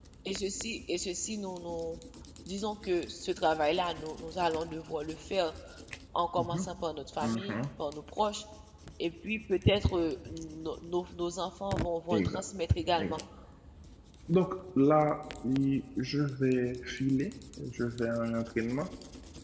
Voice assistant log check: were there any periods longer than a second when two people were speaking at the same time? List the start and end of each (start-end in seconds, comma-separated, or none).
none